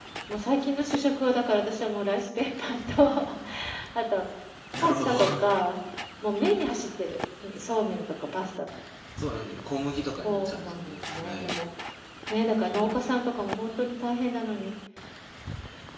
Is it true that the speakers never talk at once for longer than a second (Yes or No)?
No